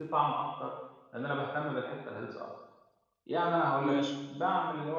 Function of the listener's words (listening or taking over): listening